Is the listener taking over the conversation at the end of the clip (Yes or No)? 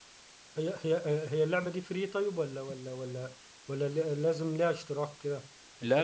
No